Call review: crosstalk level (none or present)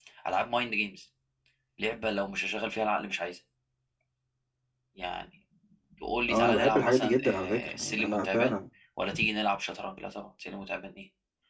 present